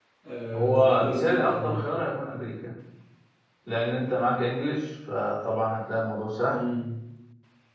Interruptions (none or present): present